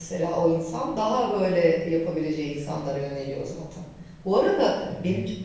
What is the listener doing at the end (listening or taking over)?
listening